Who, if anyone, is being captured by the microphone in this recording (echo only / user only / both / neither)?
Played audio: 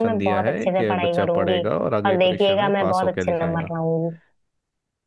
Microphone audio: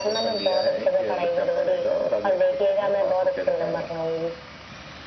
echo only